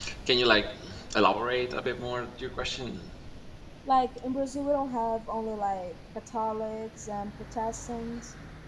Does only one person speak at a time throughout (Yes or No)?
Yes